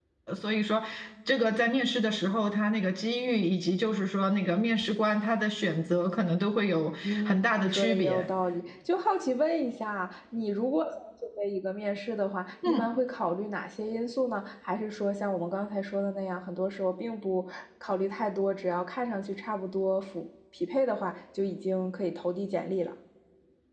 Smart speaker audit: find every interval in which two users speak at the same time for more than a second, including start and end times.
7.0-8.2

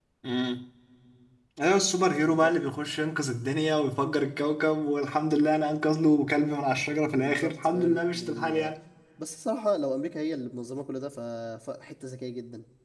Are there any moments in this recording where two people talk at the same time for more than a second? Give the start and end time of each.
7.2-8.7

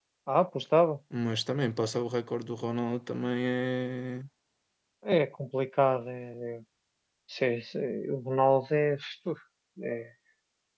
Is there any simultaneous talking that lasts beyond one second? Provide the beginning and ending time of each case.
none

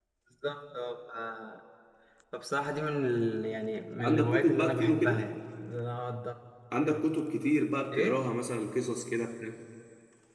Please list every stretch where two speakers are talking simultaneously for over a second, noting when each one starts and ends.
4.0-5.2

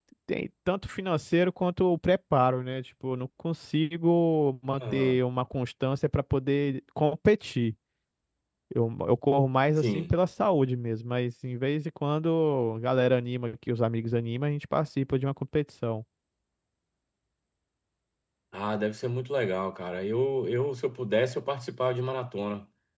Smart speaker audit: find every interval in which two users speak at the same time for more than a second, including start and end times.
none

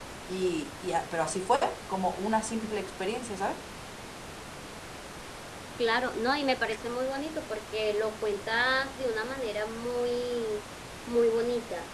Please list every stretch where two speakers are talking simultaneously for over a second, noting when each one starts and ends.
none

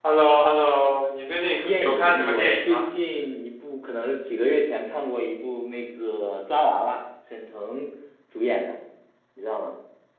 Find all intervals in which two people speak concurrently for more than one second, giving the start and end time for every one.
1.6-2.8

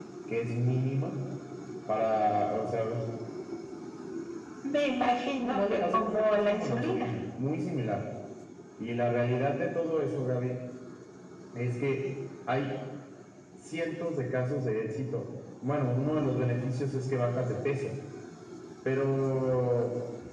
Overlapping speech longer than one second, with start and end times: 5.4-7.1

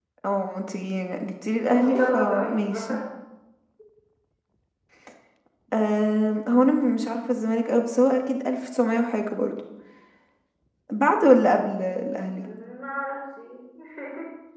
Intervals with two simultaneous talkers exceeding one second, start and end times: 1.7-3.0

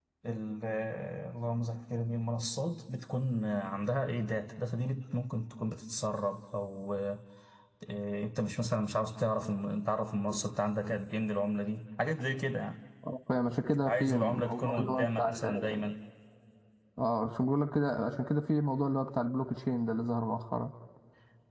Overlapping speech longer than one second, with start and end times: 13.8-15.7

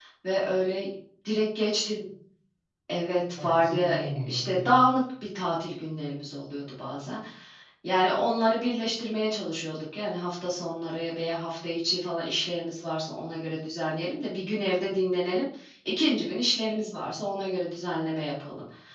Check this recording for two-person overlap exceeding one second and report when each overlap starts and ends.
3.4-4.8

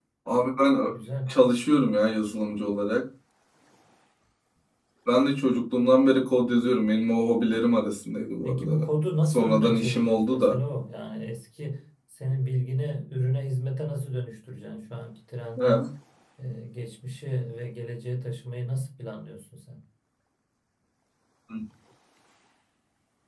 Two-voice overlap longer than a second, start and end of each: 9.2-10.6

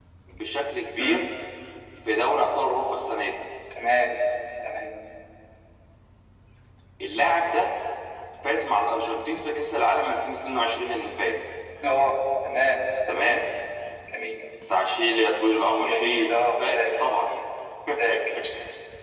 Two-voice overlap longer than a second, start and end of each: 15.8-17.1

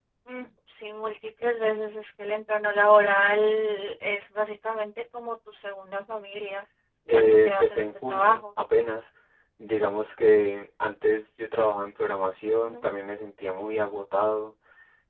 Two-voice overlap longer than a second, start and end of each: 7.1-8.4

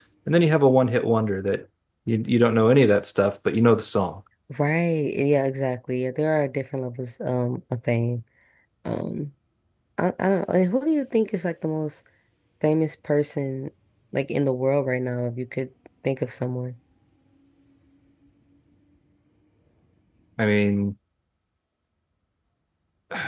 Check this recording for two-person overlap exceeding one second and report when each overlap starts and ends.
none

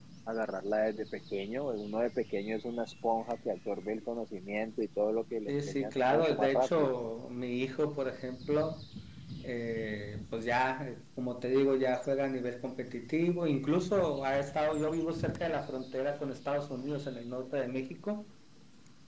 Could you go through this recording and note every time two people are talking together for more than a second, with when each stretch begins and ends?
5.5-6.9

